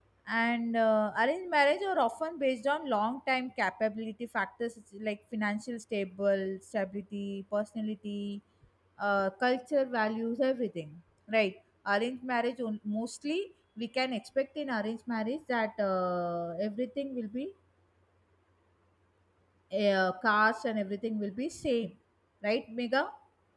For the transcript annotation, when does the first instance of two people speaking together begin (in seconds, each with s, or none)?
none